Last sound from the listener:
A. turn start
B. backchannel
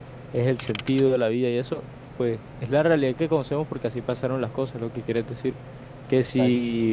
B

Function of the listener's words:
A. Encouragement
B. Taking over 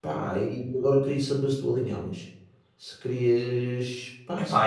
B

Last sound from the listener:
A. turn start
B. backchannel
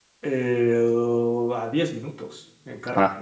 B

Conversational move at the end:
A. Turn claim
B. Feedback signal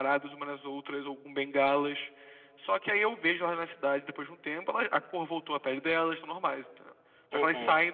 B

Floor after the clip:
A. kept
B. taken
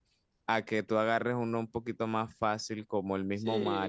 B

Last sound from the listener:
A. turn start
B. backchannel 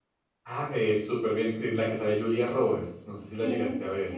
A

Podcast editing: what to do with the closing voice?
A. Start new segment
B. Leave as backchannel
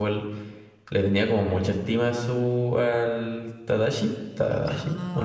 A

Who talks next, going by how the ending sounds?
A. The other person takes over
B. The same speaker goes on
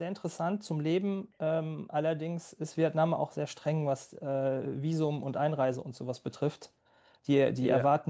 B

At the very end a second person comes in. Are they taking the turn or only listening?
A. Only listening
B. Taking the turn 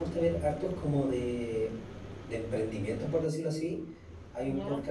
A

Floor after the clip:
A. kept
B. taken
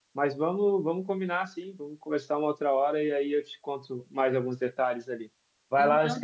B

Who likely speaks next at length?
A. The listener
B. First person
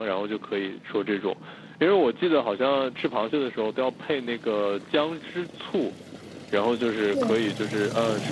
B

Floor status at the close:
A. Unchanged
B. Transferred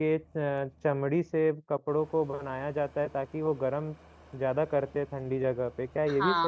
B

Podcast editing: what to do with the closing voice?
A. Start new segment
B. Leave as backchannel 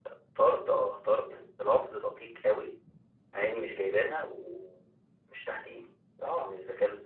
B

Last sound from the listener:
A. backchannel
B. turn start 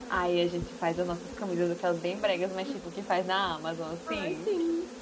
B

